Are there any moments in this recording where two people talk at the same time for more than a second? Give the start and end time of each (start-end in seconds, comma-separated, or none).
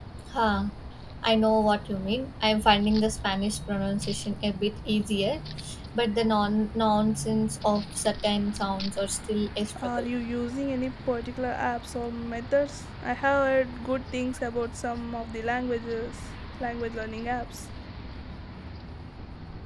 none